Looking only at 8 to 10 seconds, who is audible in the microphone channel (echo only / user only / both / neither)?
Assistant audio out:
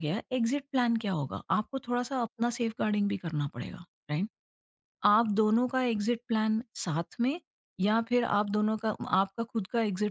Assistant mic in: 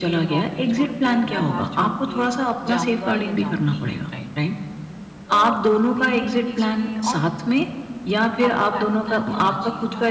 both